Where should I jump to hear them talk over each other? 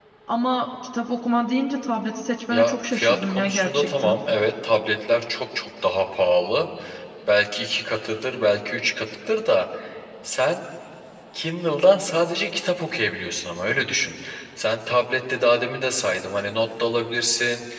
3 s

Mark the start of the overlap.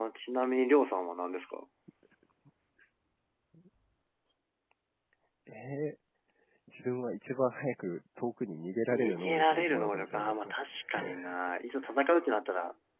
9 s

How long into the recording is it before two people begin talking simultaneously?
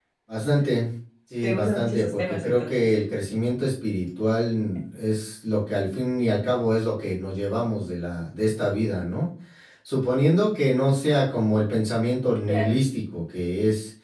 1 s

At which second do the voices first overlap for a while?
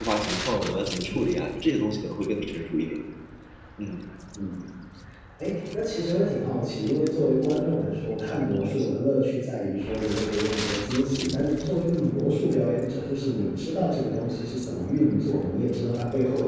none

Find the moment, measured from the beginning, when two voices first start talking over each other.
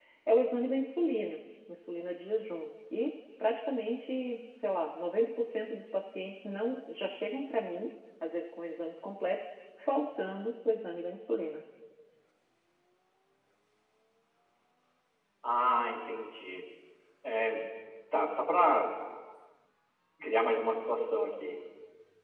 none

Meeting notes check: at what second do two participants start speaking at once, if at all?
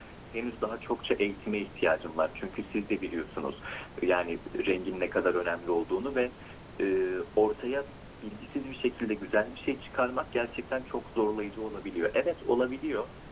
none

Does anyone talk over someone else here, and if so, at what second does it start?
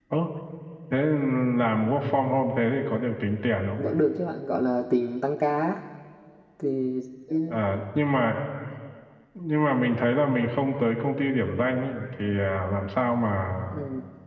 none

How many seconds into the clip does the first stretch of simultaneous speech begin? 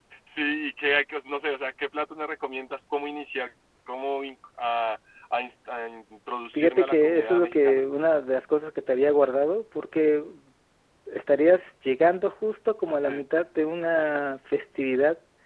7 s

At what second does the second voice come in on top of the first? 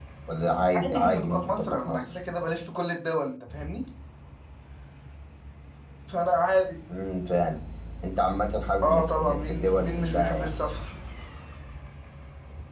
1 s

